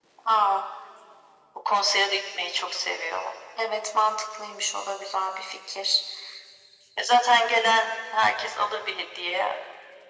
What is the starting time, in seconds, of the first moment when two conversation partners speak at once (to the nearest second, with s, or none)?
none